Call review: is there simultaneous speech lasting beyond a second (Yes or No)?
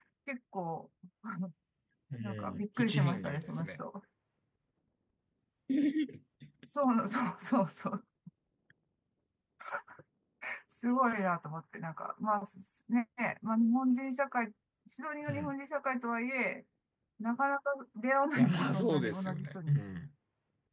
Yes